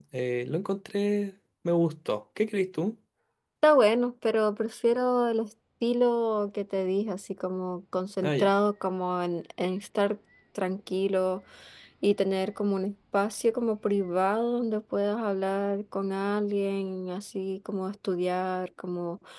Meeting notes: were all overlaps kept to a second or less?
Yes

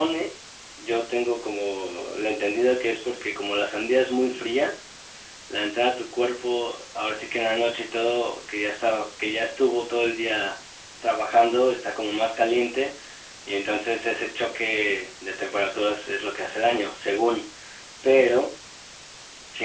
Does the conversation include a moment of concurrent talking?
No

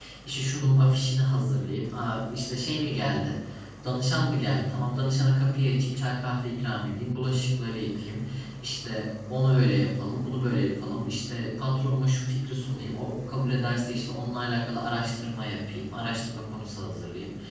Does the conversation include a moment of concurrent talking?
No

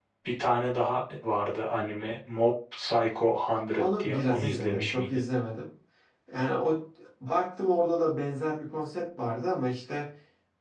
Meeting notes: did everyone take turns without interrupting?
No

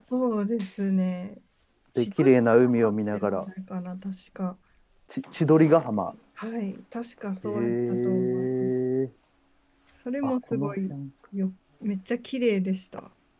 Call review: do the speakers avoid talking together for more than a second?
No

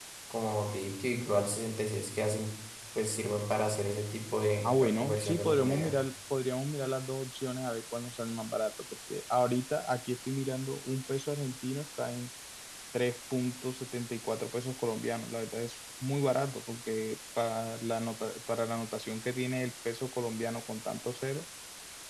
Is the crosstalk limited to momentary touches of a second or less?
No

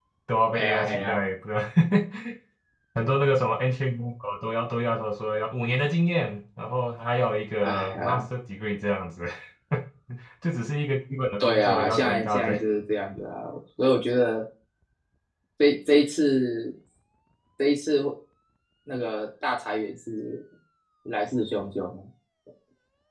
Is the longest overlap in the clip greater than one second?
Yes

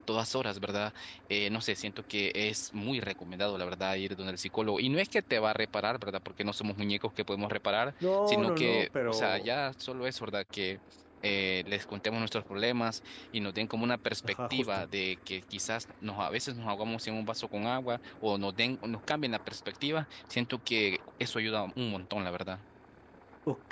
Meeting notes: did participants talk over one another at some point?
Yes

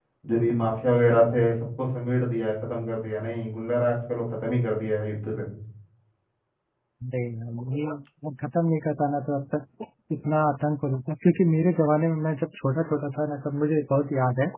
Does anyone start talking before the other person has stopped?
No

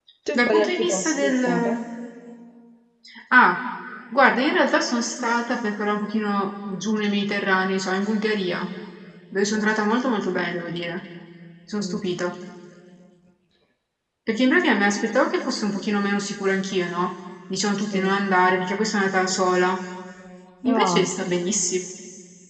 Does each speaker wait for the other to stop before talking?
No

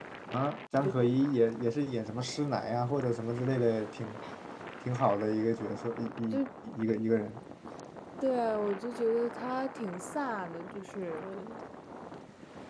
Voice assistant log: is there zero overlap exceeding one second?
Yes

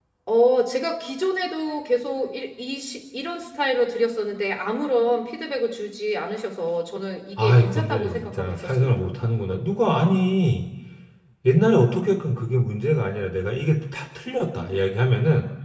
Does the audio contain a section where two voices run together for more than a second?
Yes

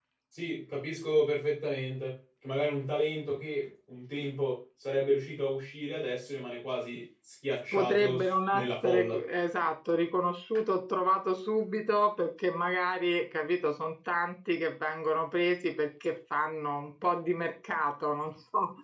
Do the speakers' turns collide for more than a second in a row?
Yes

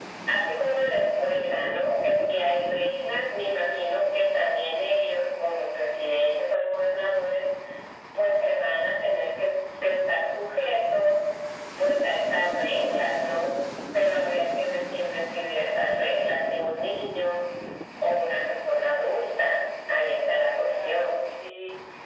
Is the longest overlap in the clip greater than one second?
No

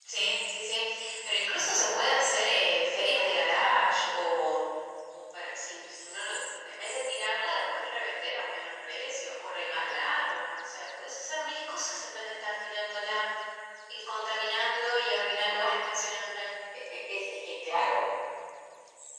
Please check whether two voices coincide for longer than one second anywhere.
No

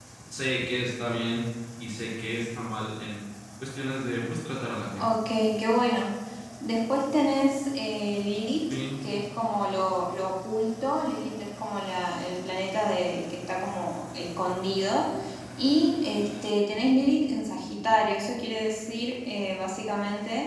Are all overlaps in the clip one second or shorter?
Yes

